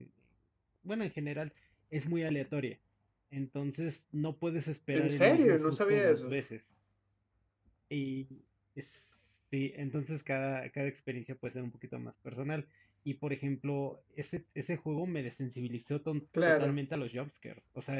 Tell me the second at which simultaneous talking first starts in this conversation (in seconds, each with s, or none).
4.9 s